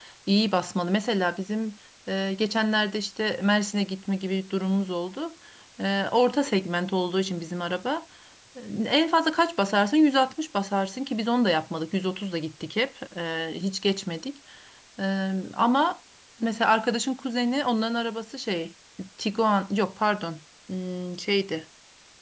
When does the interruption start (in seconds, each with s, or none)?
none